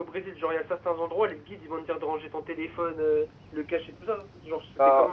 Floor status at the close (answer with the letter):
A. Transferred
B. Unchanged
A